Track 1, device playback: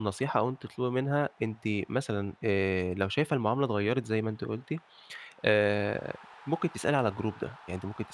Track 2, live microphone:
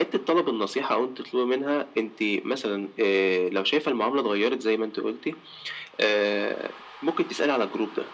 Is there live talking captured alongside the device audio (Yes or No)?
No